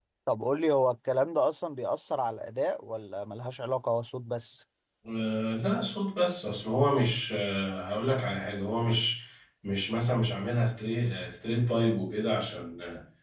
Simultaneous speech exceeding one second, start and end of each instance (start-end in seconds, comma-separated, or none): none